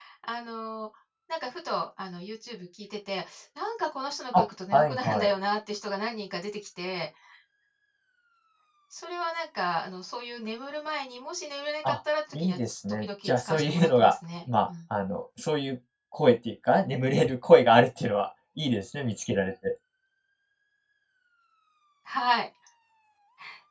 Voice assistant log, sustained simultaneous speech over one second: present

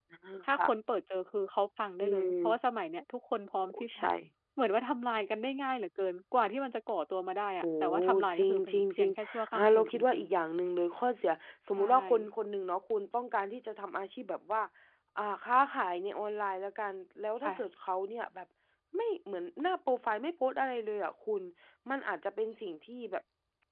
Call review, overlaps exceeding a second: present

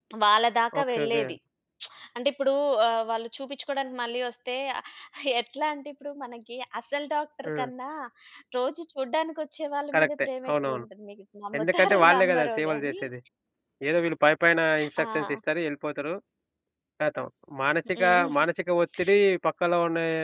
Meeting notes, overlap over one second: present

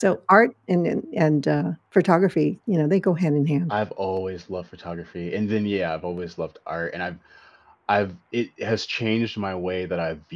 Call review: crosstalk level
none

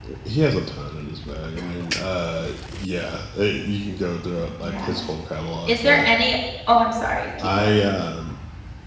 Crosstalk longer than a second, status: none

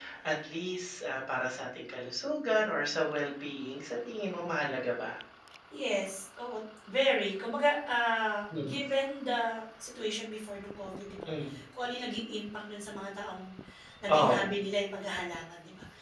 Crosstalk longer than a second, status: none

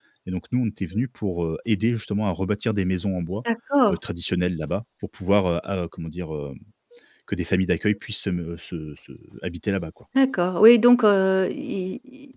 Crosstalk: none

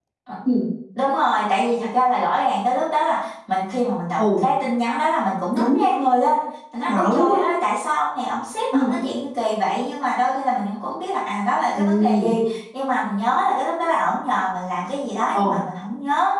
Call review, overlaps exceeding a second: none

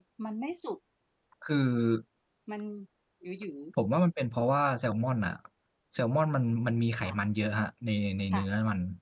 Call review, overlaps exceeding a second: none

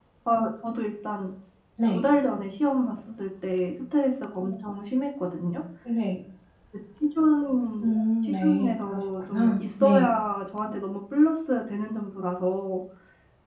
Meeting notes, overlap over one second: present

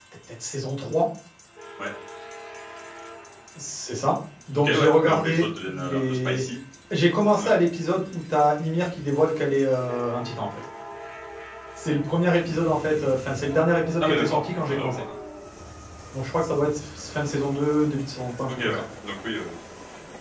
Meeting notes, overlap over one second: present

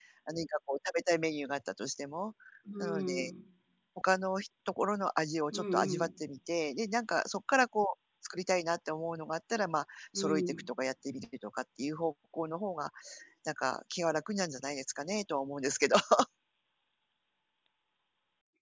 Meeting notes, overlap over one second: none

